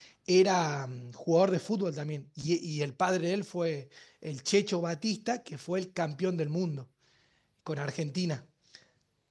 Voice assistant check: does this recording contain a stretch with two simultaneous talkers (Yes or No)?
No